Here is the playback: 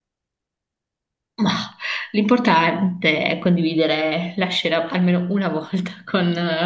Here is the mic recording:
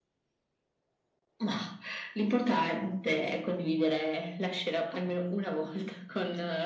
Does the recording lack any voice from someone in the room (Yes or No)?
Yes